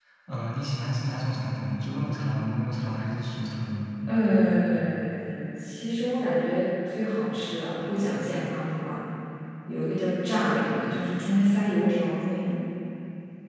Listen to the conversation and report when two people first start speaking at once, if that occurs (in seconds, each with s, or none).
none